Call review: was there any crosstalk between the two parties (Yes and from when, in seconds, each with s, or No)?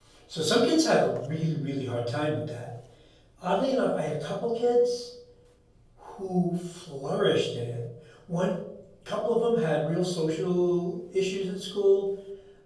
No